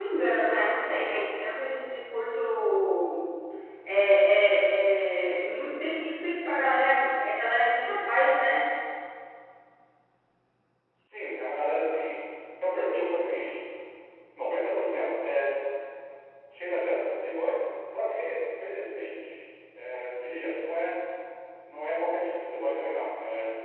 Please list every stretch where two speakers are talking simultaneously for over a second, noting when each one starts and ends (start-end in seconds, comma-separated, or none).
none